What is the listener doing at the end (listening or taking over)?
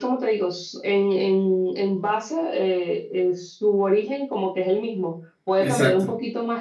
listening